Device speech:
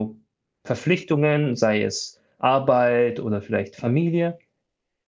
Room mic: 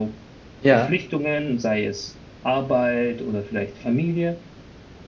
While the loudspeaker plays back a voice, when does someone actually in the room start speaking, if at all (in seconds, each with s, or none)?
0.6 s